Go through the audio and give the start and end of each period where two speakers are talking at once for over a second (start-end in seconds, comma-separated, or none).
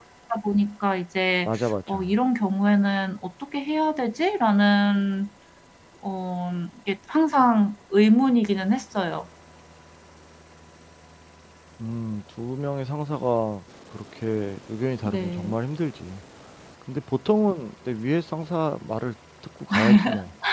none